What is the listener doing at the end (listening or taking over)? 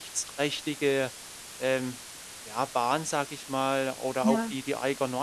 listening